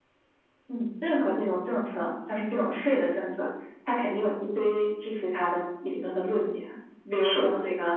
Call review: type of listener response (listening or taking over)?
listening